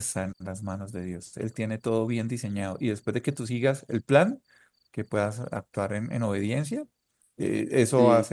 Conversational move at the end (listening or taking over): listening